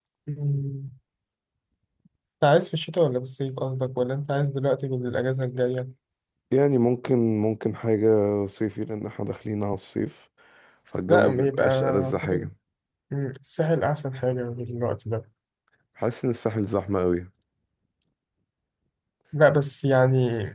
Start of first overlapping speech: 11 s

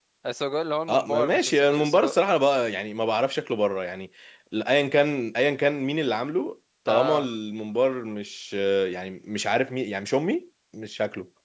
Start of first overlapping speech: 1 s

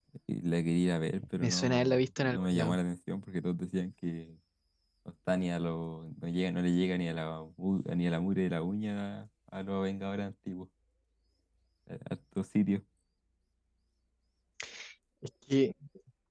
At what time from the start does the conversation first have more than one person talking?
1 s

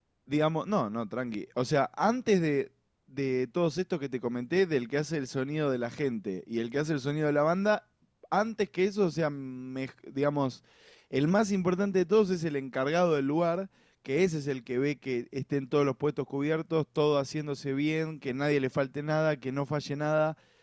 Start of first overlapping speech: none

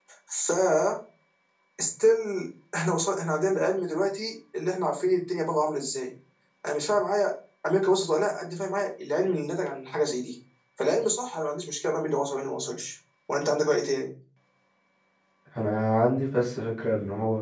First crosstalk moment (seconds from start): none

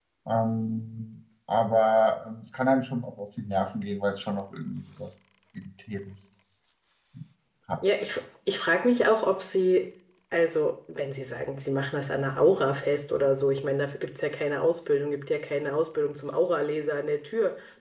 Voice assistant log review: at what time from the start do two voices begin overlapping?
none

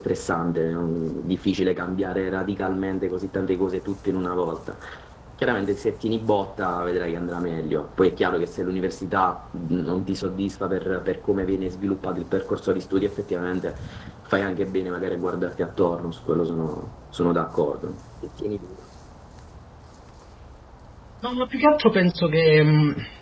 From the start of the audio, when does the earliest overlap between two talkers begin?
none

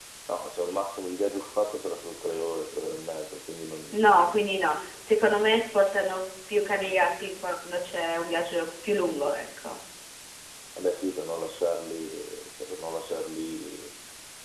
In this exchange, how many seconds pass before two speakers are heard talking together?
none

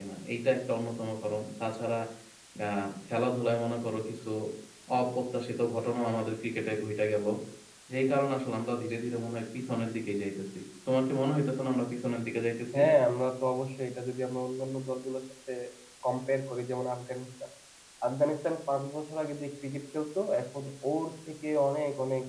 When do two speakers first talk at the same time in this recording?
none

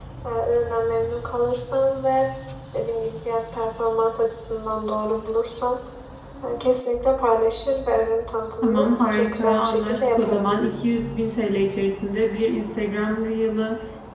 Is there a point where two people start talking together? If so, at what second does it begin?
9 s

